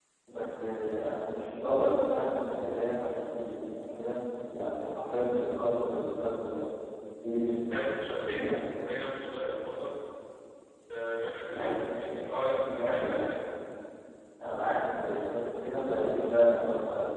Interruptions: present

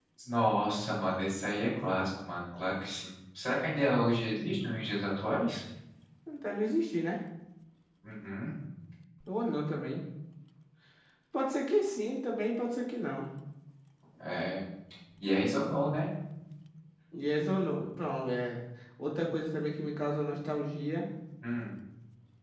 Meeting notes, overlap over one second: none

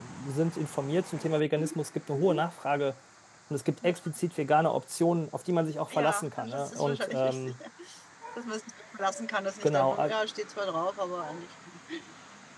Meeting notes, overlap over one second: present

